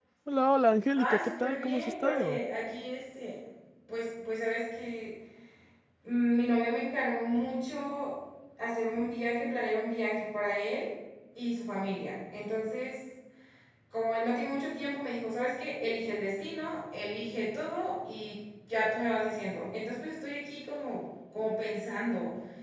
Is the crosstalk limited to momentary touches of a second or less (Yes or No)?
No